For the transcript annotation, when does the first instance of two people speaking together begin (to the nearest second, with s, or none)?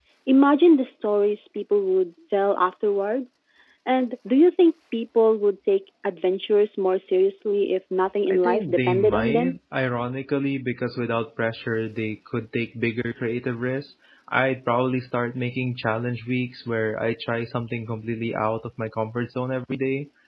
8 s